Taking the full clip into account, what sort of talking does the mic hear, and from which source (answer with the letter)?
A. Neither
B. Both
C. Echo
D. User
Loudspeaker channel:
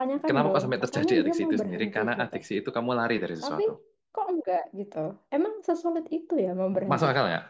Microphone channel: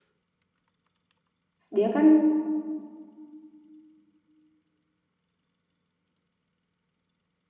D